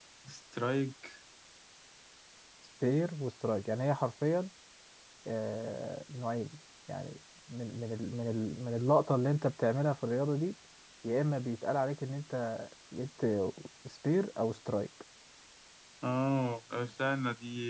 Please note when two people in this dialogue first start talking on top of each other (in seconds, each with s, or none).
none